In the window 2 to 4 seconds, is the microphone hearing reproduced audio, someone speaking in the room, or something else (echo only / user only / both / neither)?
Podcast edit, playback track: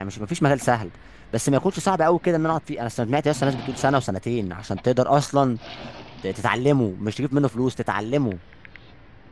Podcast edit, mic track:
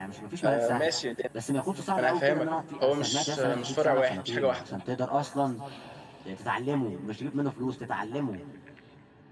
both